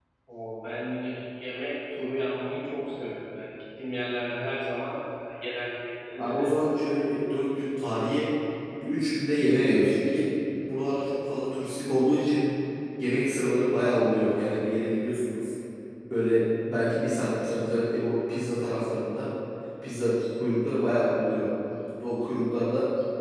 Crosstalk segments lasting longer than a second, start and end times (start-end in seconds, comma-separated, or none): none